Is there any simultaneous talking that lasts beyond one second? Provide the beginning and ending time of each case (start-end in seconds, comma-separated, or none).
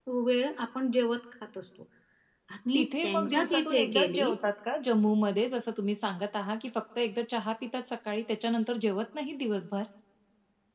2.7-4.3